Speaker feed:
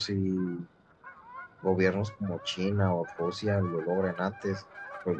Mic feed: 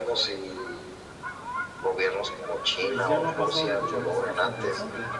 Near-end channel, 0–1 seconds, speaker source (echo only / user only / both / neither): echo only